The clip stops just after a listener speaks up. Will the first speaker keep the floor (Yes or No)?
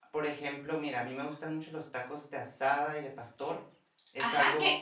No